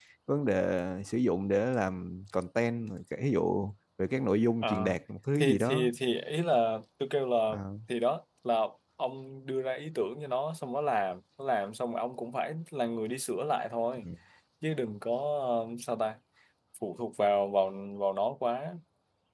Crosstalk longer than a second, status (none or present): none